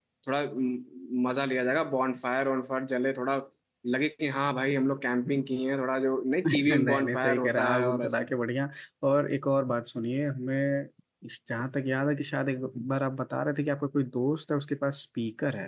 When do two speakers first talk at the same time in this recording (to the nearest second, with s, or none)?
6 s